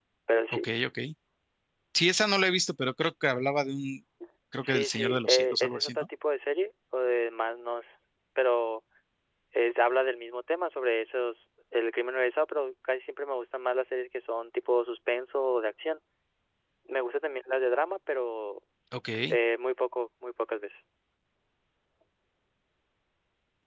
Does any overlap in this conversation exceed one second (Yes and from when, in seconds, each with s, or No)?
Yes, from 4.6 s